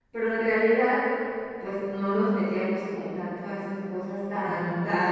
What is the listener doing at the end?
listening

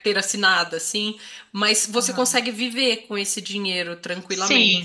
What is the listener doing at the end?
taking over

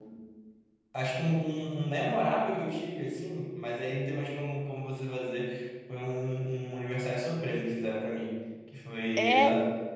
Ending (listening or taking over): listening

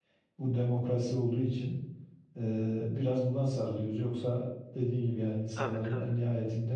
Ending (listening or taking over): listening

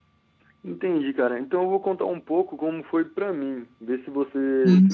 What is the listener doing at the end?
taking over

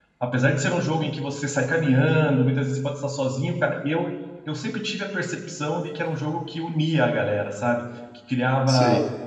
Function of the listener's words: listening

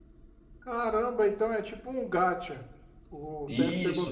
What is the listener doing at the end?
taking over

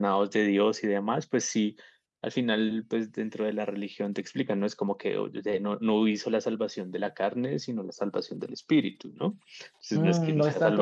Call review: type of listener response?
taking over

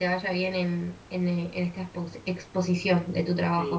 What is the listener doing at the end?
taking over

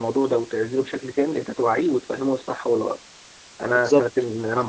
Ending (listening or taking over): listening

